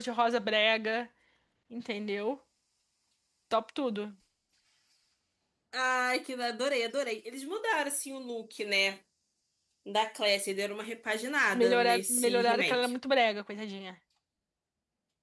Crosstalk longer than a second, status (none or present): present